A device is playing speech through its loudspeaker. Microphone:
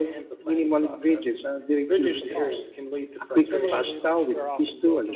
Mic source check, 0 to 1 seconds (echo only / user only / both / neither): echo only